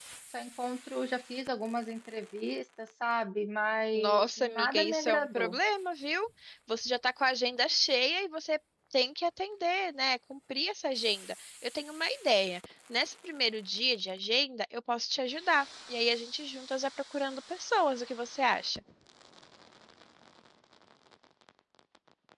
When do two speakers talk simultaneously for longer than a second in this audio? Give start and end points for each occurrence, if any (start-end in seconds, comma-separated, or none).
3.9-5.6